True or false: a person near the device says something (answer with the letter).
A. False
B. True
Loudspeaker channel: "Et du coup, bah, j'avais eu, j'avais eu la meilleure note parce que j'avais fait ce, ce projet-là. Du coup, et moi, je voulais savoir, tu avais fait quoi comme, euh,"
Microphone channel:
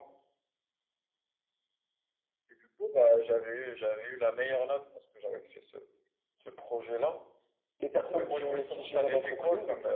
B